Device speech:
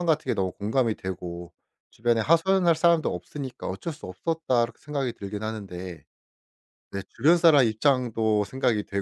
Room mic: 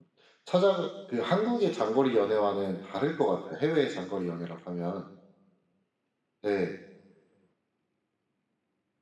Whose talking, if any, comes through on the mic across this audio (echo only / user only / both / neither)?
user only